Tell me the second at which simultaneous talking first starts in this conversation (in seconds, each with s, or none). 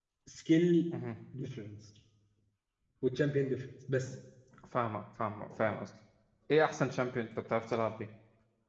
none